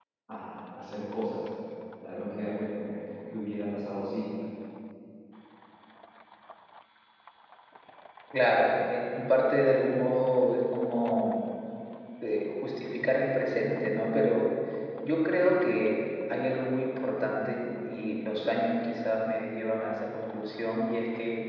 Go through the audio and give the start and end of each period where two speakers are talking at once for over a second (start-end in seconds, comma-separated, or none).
none